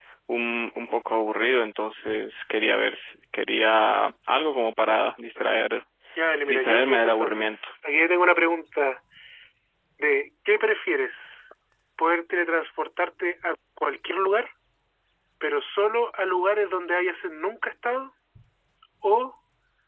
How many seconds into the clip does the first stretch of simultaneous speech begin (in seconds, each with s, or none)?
6.5 s